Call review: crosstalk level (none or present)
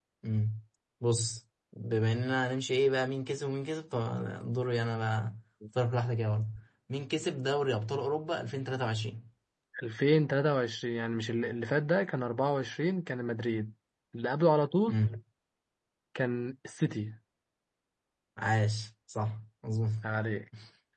none